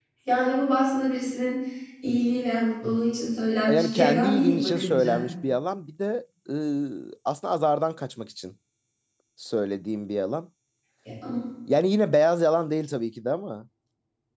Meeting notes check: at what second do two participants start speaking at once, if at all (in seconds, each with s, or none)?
3.7 s